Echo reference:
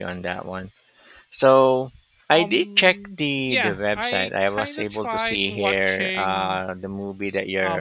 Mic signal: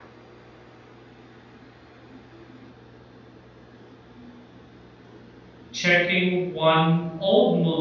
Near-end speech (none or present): present